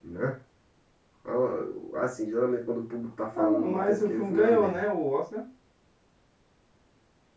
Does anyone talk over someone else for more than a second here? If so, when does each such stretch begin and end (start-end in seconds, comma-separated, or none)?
3.4-4.8